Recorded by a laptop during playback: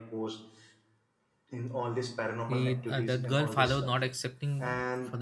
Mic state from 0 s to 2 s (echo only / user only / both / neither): echo only